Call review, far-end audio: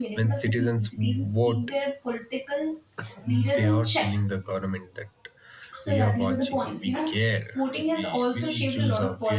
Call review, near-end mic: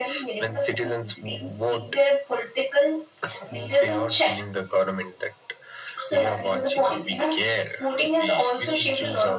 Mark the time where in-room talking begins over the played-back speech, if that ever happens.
none

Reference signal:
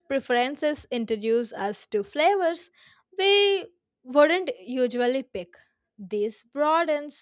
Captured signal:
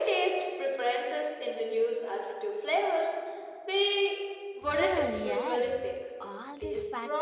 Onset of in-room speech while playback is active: 4.6 s

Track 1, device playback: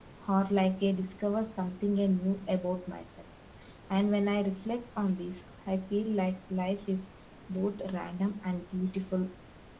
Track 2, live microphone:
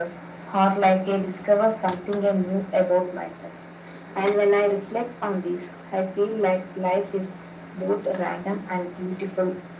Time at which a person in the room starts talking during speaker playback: none

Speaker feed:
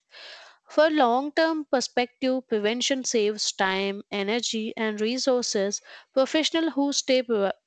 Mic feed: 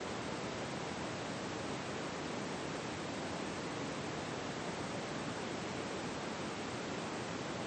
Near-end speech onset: none

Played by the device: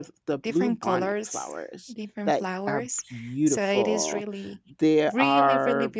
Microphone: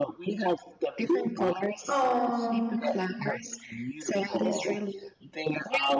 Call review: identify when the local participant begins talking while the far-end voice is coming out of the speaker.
1.9 s

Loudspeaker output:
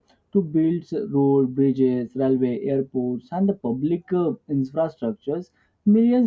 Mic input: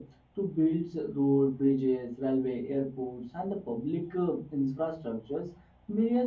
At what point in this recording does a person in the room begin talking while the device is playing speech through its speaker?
none

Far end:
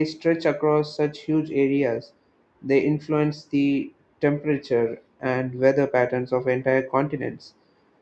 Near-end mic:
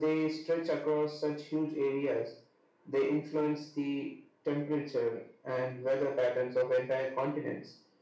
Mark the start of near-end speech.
none

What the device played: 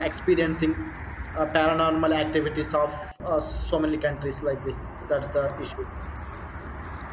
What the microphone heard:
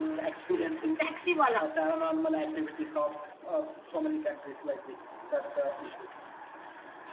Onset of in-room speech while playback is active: 0.5 s

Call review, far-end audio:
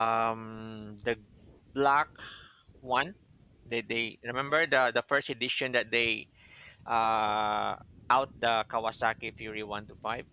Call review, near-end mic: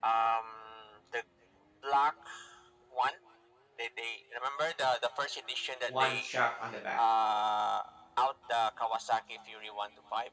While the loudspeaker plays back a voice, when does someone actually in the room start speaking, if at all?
5.9 s

